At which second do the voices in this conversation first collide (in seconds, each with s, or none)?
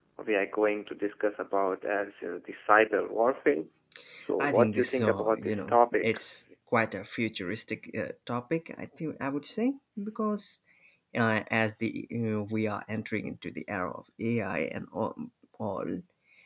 4.4 s